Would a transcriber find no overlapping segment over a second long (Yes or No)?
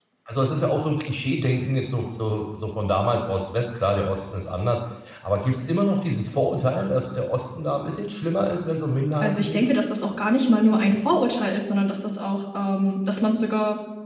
Yes